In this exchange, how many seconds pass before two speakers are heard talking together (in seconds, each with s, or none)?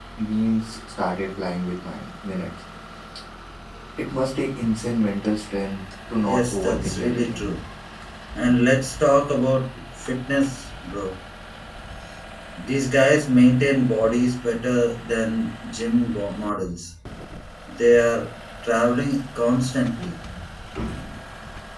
6.2 s